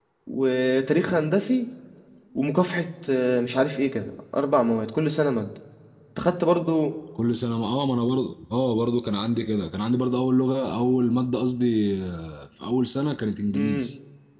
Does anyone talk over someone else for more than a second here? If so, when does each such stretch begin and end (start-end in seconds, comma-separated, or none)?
none